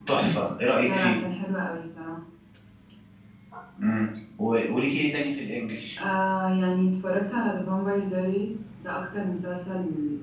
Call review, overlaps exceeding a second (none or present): none